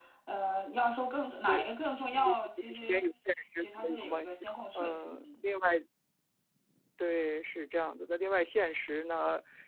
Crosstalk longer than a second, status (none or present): present